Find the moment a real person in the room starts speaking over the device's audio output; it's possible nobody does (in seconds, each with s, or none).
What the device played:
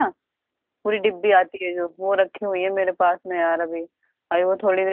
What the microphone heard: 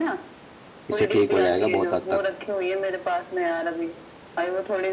0.9 s